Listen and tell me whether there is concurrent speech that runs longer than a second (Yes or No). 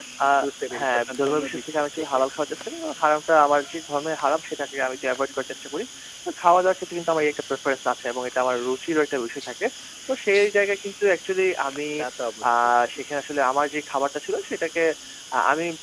Yes